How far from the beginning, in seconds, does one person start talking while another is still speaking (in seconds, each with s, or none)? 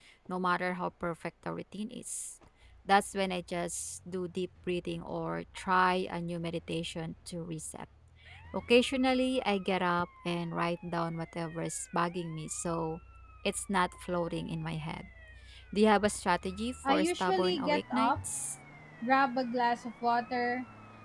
16.8 s